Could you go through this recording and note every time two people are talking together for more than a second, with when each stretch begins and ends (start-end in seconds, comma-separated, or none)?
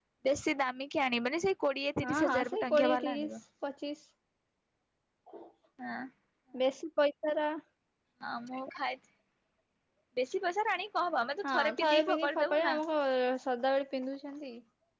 2.0-3.3, 11.4-12.8